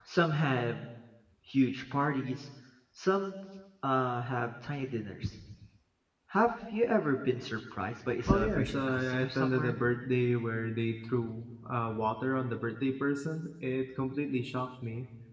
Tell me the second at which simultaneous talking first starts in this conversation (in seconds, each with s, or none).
8.3 s